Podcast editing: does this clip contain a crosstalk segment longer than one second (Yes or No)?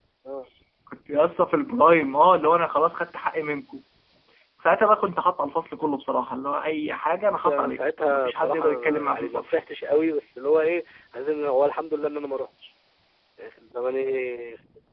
Yes